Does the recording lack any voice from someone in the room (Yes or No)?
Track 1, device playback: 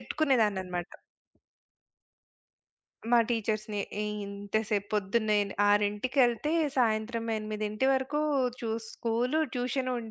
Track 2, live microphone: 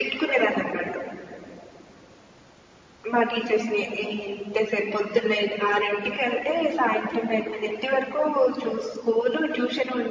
Yes